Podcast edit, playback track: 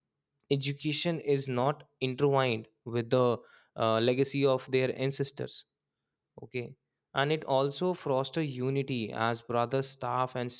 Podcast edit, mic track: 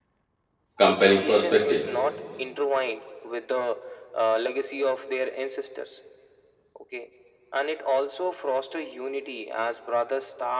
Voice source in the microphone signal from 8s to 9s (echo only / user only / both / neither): echo only